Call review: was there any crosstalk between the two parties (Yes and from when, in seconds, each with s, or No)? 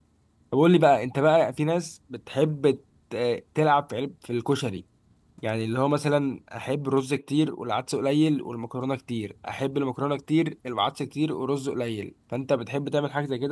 No